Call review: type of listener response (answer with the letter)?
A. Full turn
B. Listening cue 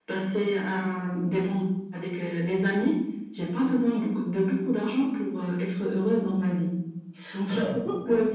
B